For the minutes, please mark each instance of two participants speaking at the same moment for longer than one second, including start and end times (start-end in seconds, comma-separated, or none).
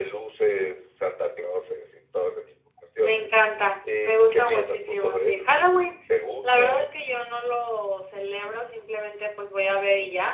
4.0-5.4